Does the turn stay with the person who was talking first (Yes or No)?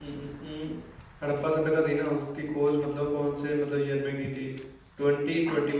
Yes